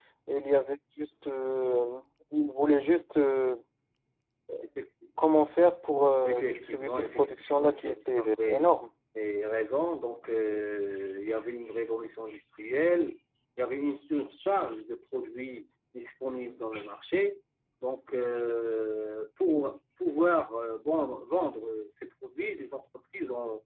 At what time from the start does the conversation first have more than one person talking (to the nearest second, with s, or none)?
6 s